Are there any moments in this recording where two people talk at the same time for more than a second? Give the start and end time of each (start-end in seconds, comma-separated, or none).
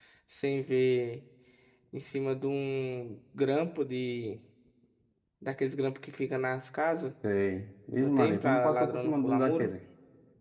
8.0-9.7